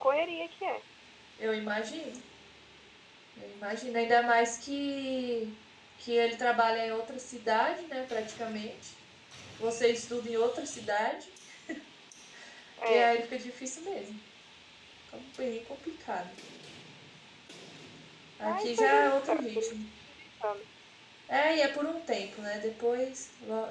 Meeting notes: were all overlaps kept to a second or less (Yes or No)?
No